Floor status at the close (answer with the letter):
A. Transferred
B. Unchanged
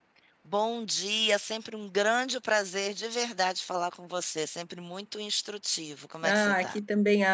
A